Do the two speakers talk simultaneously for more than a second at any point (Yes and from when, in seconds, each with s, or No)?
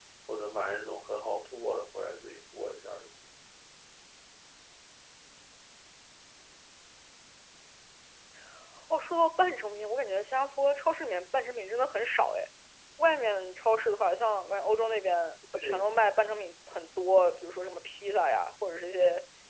No